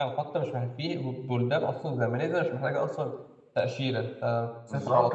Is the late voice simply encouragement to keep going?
No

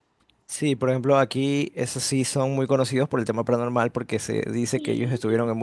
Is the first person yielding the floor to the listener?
No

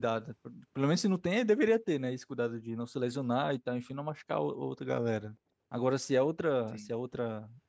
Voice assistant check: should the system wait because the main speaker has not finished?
Yes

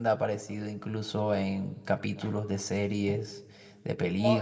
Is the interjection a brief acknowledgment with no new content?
No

